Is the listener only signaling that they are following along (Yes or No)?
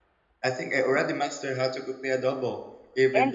No